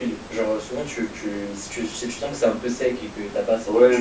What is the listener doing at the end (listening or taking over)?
taking over